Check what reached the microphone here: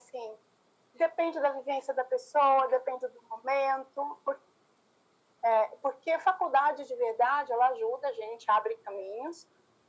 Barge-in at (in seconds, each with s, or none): none